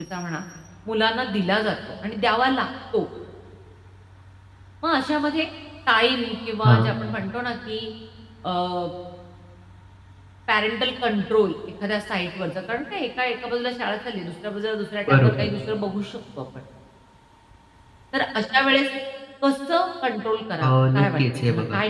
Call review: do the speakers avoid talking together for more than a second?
No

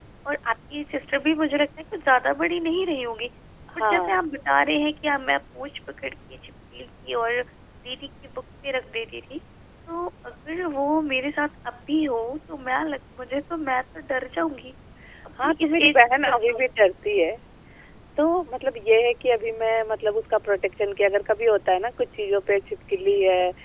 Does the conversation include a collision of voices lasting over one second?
Yes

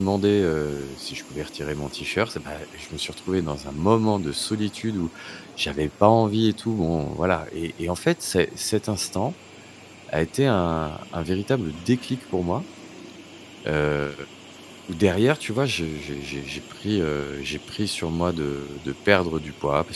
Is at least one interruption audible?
No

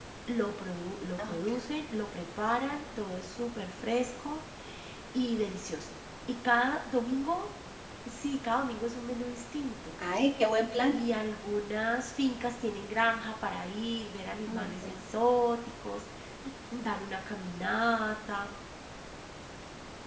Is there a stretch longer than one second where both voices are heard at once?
No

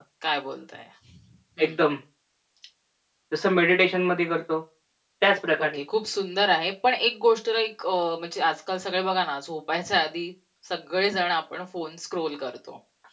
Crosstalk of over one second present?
No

